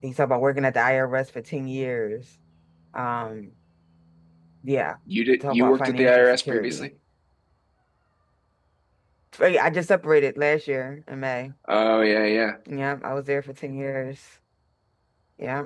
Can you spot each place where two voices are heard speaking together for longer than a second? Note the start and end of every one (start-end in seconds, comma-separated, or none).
5.4-6.9